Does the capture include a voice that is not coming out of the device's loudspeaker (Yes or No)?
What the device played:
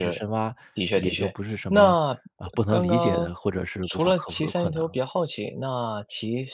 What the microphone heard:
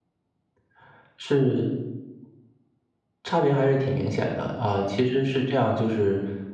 Yes